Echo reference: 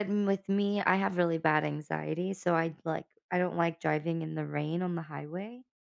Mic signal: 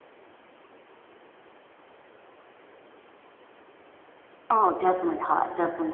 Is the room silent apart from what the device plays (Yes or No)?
No